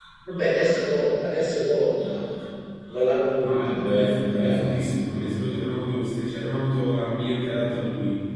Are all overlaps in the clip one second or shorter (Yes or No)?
No